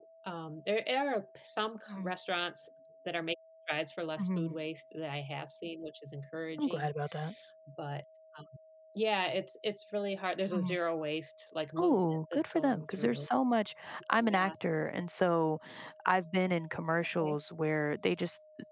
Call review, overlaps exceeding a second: present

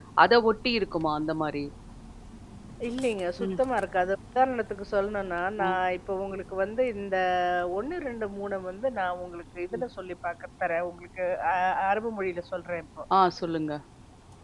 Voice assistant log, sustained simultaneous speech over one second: none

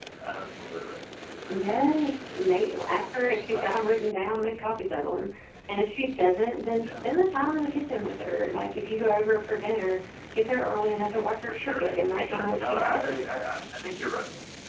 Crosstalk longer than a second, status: present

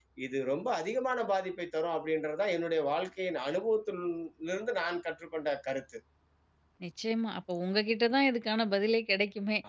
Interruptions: none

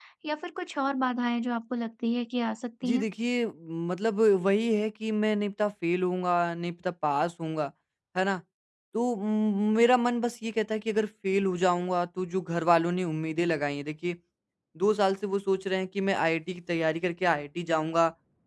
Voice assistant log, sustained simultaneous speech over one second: none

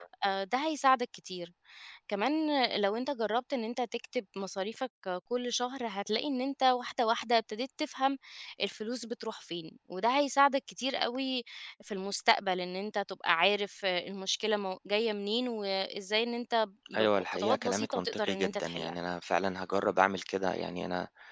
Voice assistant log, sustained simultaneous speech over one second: present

